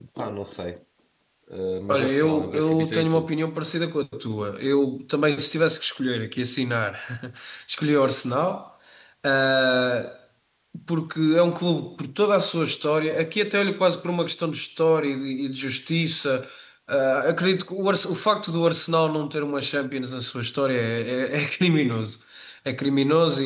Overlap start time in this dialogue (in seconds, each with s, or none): 1.9 s